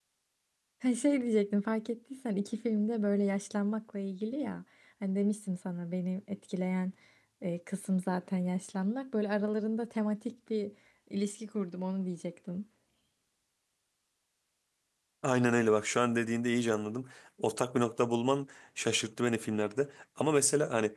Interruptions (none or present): none